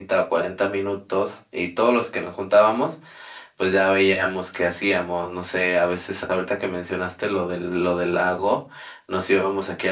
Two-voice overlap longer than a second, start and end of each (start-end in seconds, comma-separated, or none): none